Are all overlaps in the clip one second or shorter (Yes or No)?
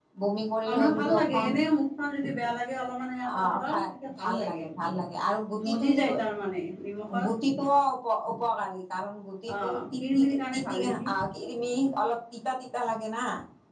No